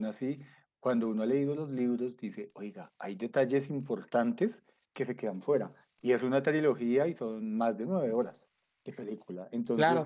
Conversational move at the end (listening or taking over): listening